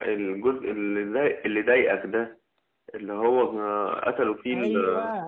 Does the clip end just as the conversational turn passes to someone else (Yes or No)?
Yes